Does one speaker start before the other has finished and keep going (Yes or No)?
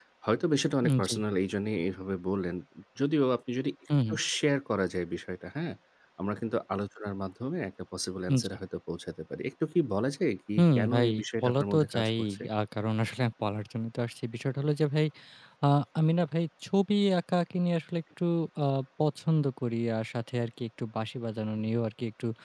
Yes